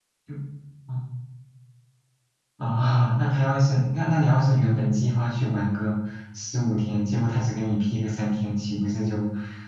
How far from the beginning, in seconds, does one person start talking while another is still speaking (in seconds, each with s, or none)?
none